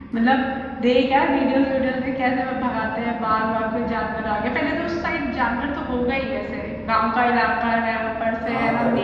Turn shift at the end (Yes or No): Yes